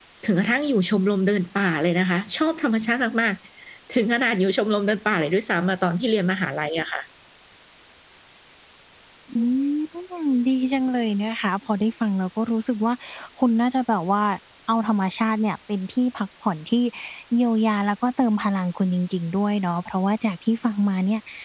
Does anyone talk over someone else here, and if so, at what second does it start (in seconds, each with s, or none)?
none